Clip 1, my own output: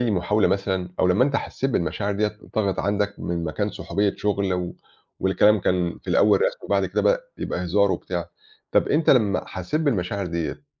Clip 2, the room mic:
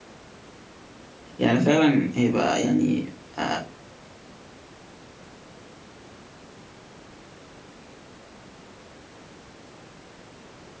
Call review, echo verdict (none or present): none